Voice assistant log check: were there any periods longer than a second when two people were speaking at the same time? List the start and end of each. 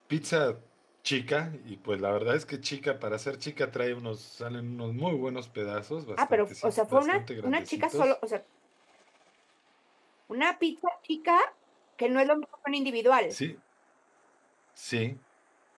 6.2-8.1

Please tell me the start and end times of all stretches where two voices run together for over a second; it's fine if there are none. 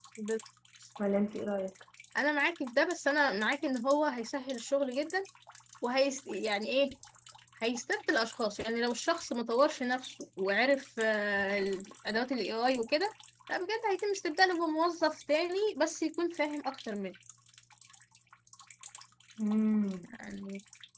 none

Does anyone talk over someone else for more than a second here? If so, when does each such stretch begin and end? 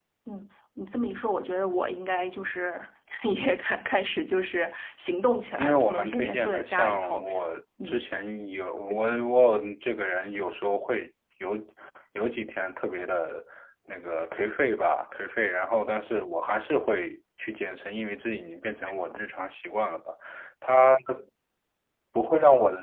5.6-7.2

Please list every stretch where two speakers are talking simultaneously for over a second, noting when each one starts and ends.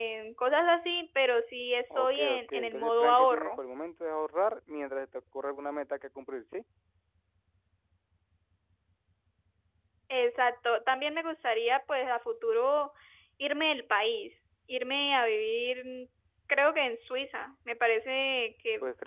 1.9-3.6

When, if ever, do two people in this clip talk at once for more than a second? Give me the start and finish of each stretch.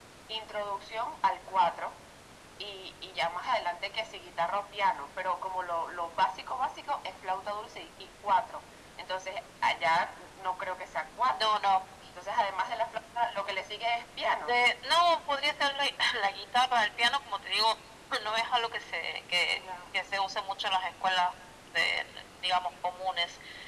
none

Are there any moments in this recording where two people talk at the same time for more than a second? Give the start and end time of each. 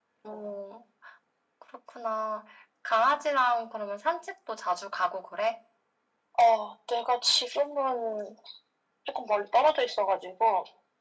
none

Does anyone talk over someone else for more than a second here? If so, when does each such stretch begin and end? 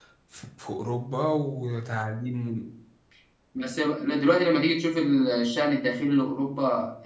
none

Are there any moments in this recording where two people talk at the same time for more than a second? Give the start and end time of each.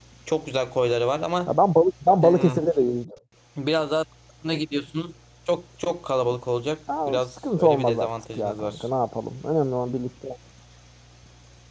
7.1-8.9

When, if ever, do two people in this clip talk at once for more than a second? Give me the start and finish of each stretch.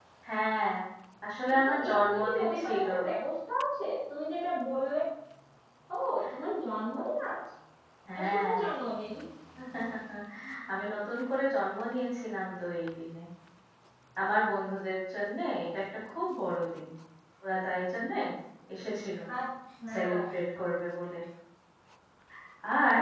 1.6-2.9

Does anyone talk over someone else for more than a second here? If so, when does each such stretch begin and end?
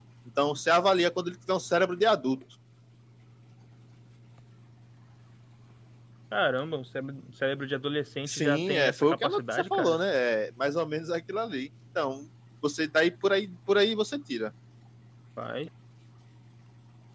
8.3-10.0

